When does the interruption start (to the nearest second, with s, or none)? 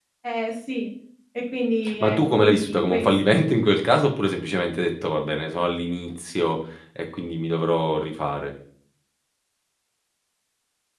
2 s